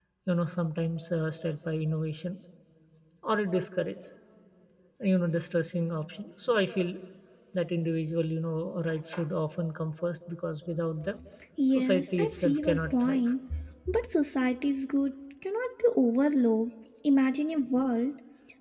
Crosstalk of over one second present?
Yes, from 11.7 s

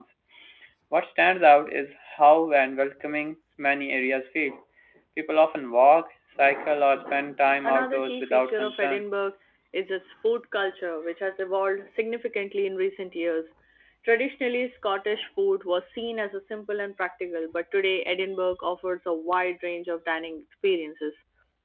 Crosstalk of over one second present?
Yes, from 7.6 s

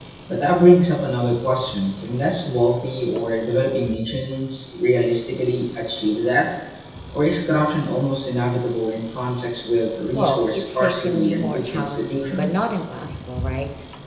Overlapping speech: Yes, from 10.1 s

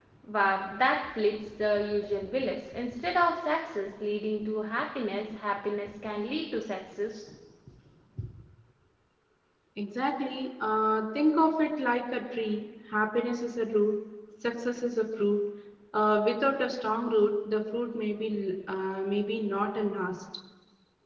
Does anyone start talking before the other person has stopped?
No

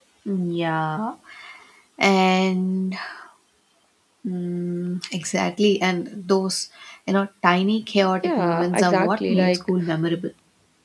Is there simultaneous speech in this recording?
Yes, from 8.2 s

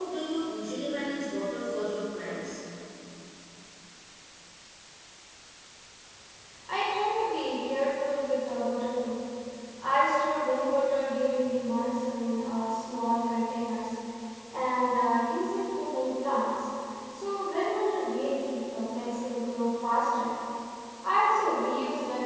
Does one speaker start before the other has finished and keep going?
No

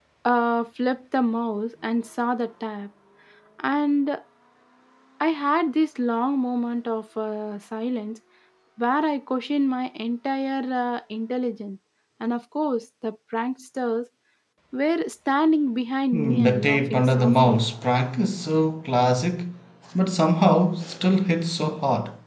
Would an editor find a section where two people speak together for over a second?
Yes, from 16.1 s

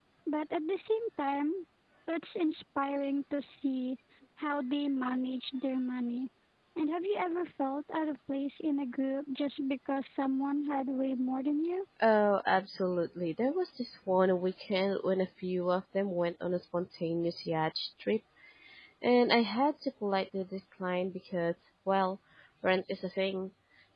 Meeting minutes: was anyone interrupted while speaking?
No

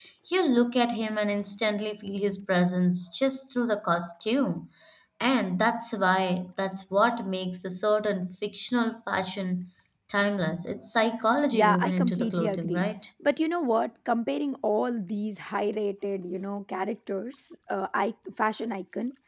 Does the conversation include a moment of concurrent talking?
Yes, from 11.5 s

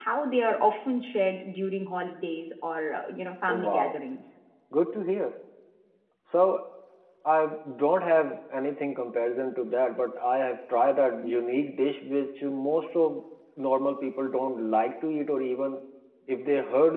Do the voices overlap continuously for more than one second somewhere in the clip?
No

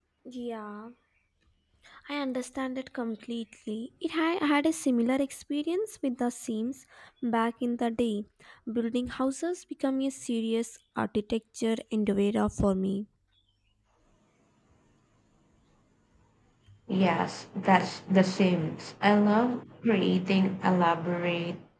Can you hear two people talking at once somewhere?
No

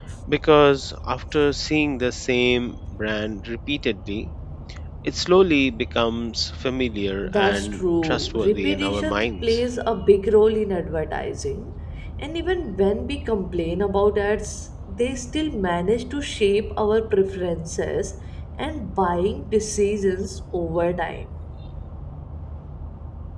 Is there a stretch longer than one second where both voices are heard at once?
Yes, from 7.2 s

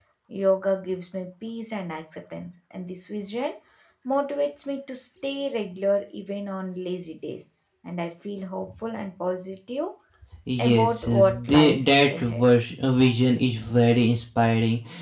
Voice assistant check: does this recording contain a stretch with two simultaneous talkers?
Yes, from 10.6 s

